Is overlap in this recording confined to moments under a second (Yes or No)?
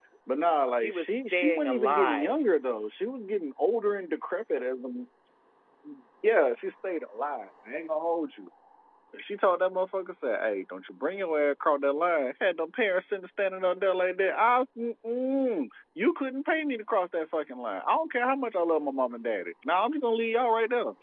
No